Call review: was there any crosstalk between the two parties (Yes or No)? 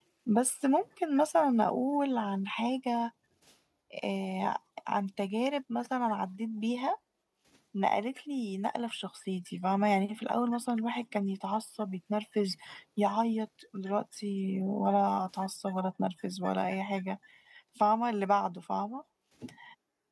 No